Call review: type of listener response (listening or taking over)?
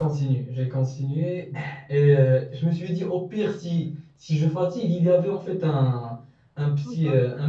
listening